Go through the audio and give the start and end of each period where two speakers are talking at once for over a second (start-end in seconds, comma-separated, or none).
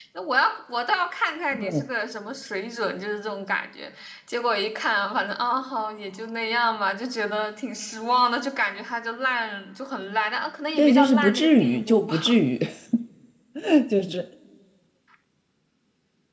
10.8-12.1